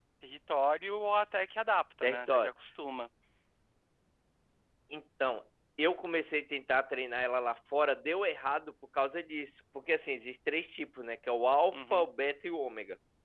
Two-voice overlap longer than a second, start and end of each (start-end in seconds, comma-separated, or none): none